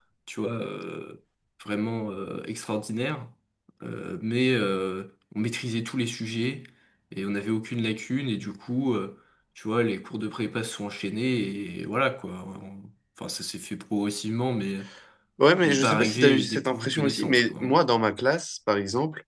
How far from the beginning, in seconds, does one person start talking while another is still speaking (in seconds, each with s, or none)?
15.6 s